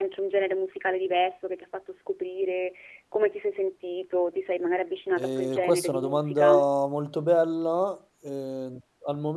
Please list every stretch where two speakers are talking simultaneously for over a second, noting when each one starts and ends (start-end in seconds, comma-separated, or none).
5.2-6.6